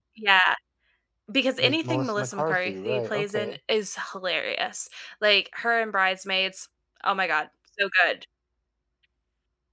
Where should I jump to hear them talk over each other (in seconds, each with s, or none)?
1.6 s